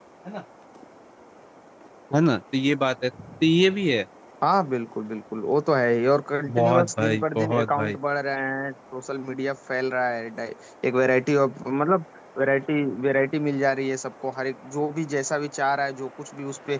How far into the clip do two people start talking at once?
6.5 s

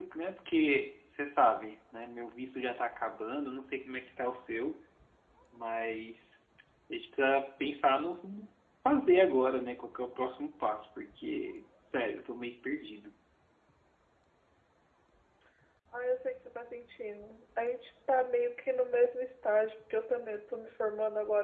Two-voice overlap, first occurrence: none

